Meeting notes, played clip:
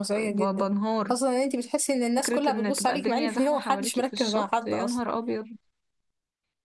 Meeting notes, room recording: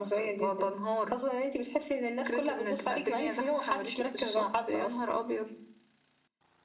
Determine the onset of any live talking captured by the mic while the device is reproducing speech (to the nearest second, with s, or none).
none